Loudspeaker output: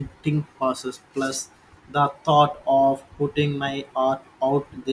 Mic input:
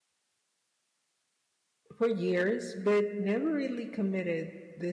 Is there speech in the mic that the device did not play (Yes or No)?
Yes